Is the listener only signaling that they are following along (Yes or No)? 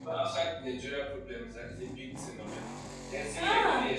Yes